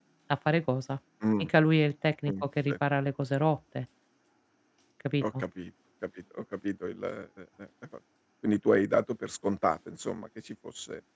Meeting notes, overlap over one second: none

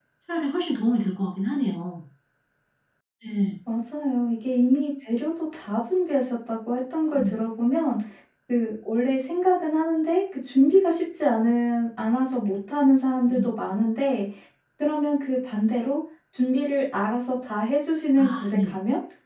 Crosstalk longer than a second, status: none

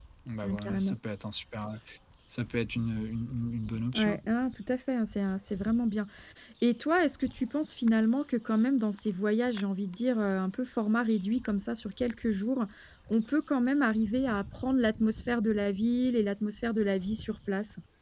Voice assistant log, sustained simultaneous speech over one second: none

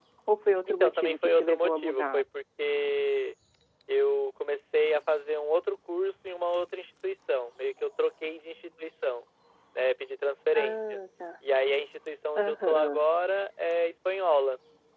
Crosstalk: present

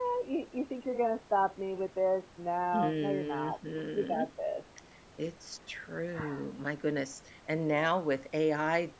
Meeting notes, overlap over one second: present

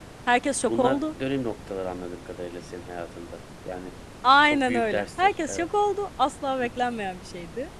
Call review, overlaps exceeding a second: present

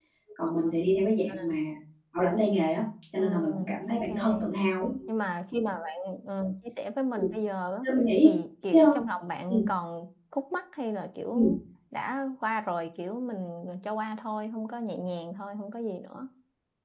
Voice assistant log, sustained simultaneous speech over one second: present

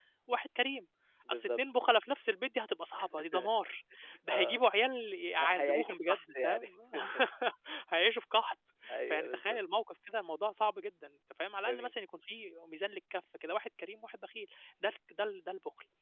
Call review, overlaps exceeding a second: present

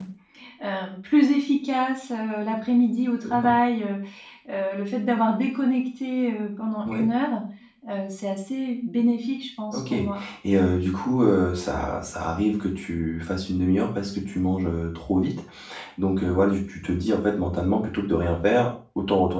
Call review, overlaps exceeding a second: none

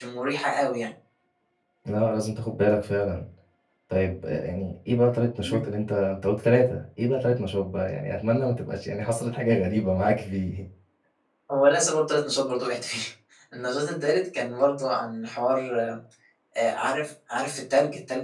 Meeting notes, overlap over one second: none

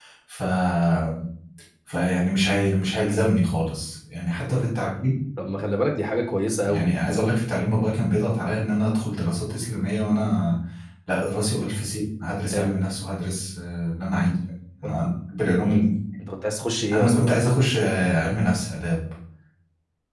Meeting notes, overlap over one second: none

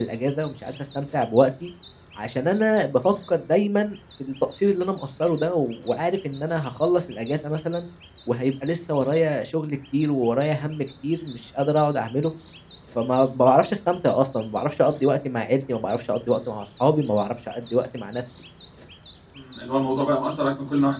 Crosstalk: none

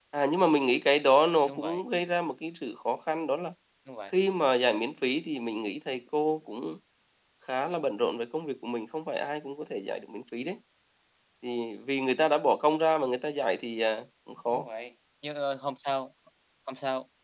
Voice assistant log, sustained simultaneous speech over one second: none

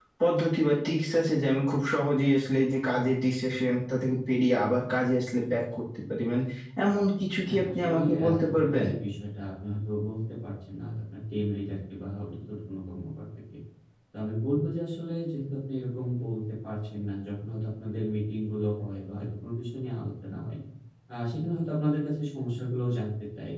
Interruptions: present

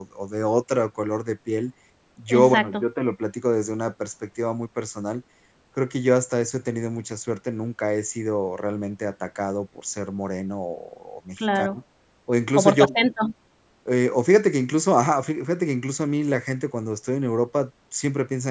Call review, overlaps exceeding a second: none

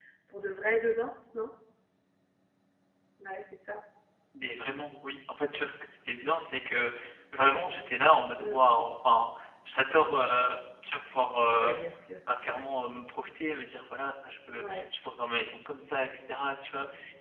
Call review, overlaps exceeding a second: none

